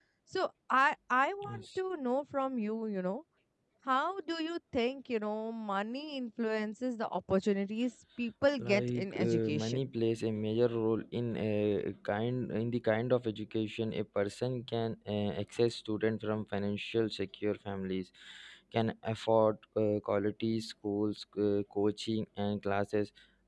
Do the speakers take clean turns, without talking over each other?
No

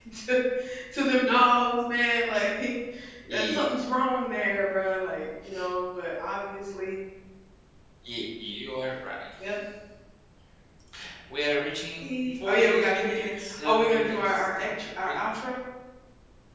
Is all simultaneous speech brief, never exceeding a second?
No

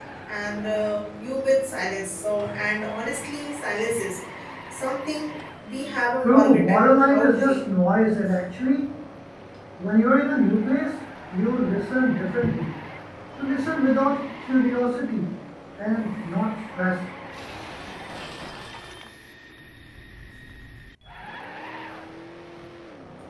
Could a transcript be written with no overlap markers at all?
No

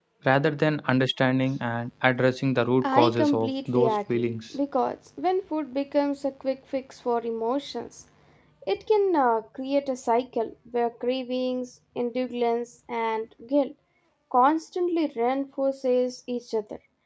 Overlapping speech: Yes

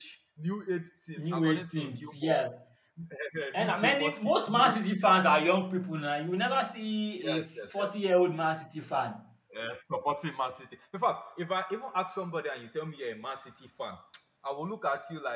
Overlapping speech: Yes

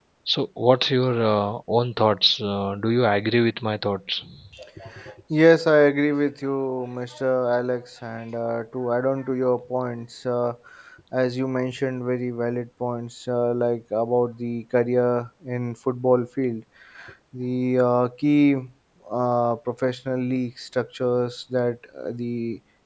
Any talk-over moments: No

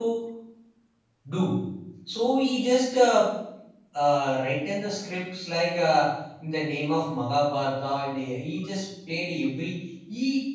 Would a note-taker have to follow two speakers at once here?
No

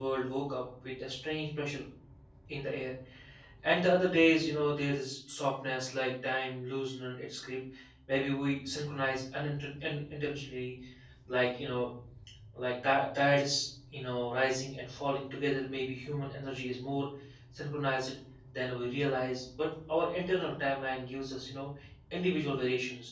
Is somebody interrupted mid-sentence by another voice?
No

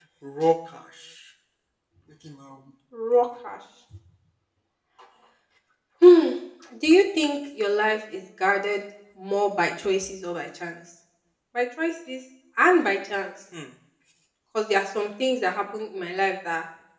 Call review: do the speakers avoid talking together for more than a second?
Yes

